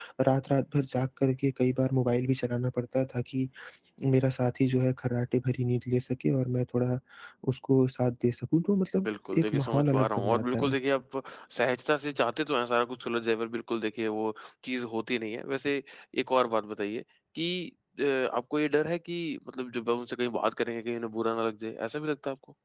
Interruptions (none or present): present